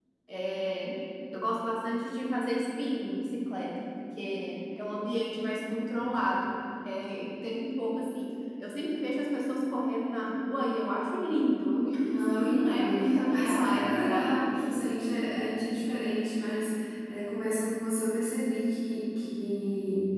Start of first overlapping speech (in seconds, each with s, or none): 12.0 s